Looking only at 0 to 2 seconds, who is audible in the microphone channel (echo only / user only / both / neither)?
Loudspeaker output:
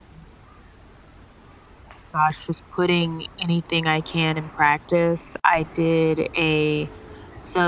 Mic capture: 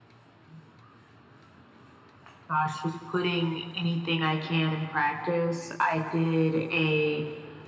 neither